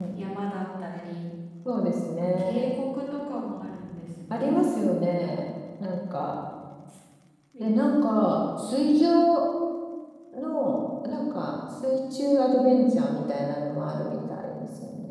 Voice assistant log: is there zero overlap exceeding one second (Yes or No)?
Yes